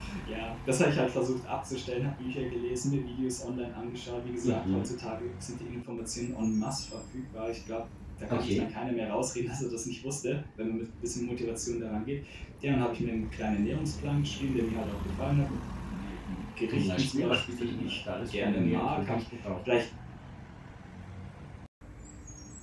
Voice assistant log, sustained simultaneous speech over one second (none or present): present